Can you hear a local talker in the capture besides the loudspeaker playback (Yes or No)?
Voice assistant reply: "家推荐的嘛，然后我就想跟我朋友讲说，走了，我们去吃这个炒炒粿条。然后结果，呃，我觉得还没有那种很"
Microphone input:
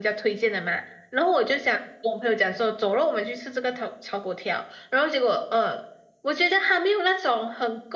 No